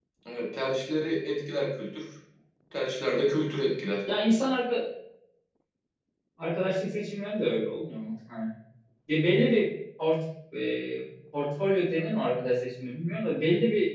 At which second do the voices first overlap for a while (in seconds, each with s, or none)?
none